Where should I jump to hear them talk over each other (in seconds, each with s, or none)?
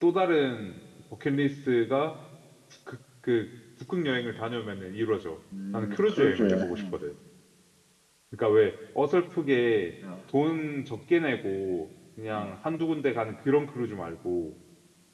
5.7 s